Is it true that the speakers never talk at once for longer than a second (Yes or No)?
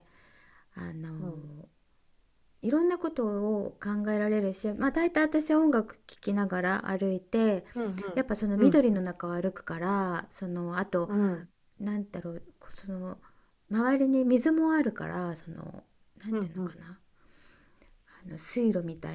Yes